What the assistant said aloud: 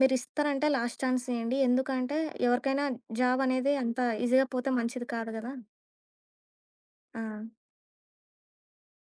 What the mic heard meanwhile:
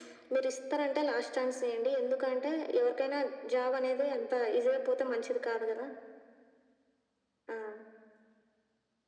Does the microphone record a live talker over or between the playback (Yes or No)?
No